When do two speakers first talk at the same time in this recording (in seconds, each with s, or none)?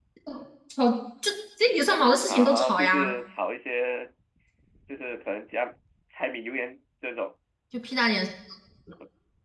1.9 s